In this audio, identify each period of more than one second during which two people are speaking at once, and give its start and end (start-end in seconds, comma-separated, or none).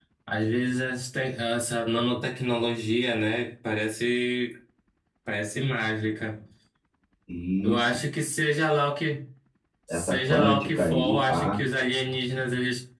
9.9-11.6